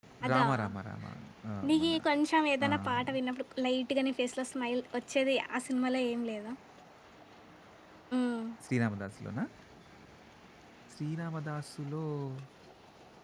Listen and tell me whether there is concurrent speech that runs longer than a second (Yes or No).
No